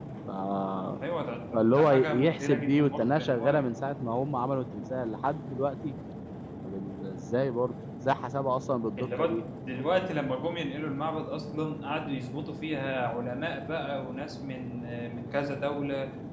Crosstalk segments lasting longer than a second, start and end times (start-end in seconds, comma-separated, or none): 1.5-3.6